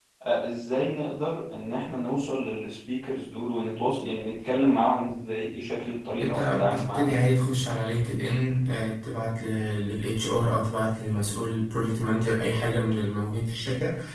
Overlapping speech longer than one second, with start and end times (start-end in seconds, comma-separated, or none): 6.2-7.4